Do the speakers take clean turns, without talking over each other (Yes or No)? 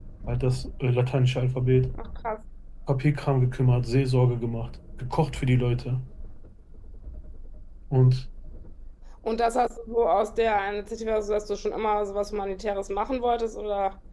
Yes